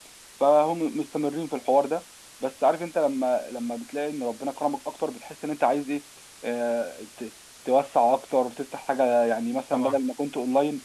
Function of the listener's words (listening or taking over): listening